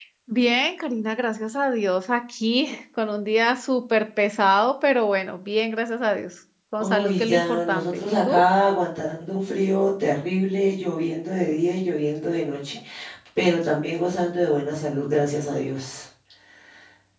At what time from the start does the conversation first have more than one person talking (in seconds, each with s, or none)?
6.8 s